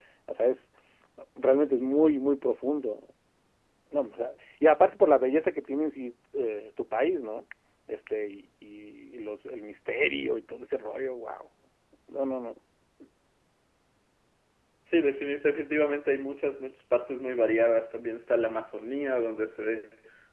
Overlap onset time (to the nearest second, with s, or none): none